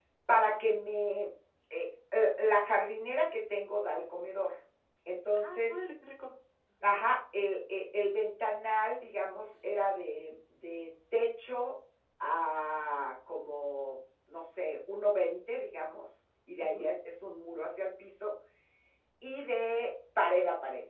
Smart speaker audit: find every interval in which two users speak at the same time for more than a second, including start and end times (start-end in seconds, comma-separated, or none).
none